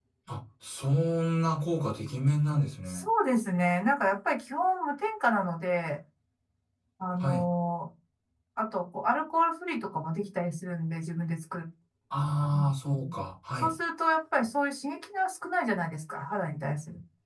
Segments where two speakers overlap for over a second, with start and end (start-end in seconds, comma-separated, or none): none